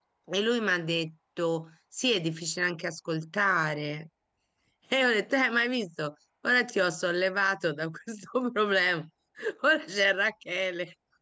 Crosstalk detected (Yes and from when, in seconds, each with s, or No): No